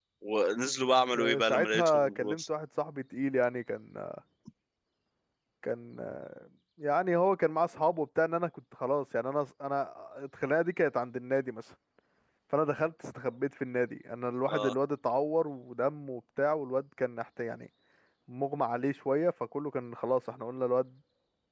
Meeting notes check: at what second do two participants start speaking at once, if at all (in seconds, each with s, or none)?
1.2 s